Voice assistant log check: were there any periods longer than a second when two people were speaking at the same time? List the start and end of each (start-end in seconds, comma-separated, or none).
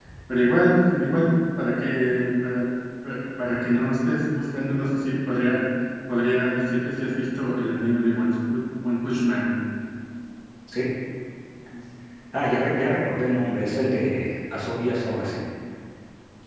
none